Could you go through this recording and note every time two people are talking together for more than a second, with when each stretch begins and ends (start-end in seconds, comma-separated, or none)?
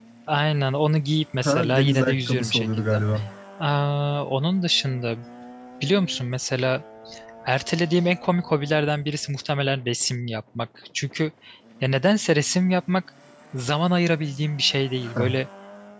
1.4-3.0